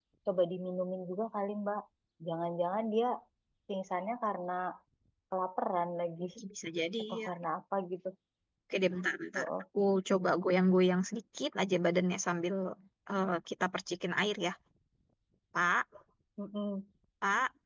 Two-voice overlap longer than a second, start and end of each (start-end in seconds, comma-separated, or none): none